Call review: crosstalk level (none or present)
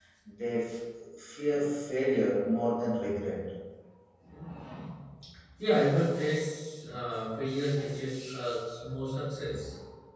none